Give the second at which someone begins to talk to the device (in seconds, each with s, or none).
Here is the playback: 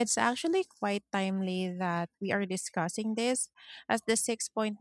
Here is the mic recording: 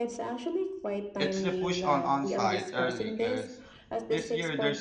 1.2 s